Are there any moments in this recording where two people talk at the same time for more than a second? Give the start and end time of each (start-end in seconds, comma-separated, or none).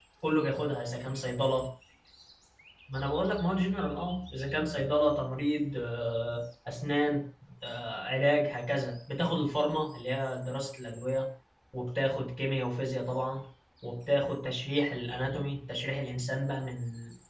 none